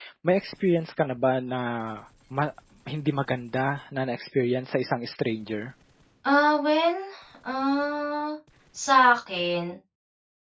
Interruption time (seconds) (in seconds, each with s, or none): none